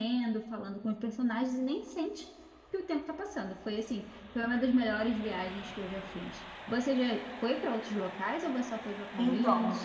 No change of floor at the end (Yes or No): No